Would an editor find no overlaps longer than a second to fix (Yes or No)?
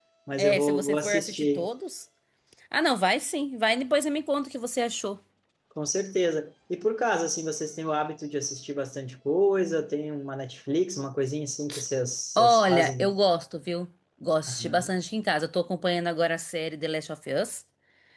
No